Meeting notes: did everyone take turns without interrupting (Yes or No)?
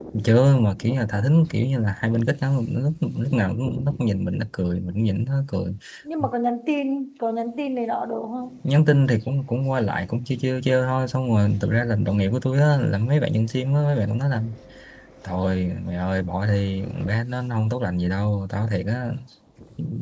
Yes